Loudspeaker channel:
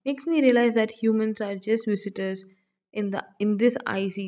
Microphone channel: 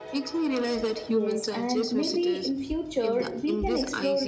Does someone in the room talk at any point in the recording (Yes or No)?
Yes